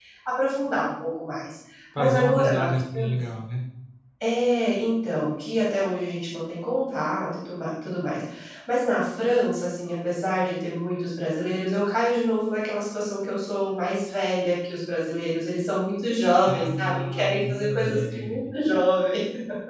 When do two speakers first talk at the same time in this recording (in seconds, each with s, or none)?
2.0 s